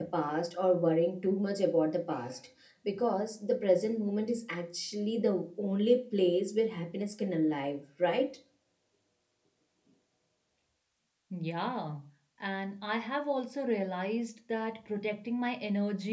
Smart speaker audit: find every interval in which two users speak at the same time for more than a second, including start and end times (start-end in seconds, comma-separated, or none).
none